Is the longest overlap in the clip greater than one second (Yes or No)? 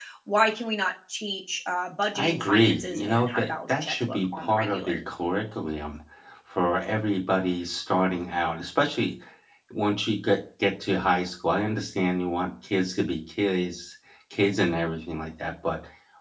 Yes